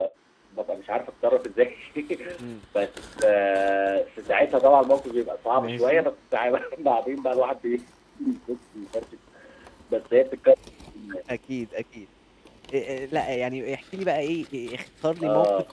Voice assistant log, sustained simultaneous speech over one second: none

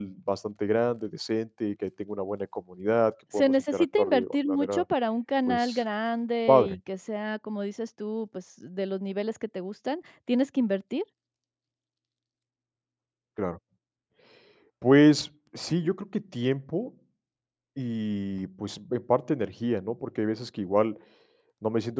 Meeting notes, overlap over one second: present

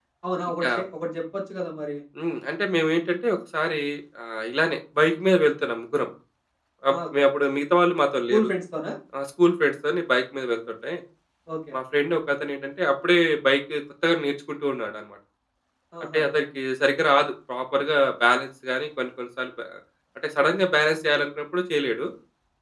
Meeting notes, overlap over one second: none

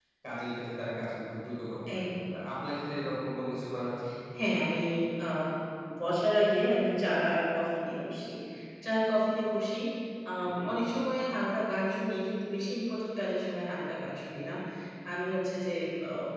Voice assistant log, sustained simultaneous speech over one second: none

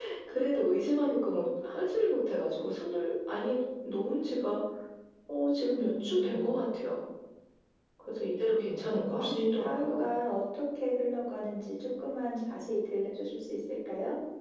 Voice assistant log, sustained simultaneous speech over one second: present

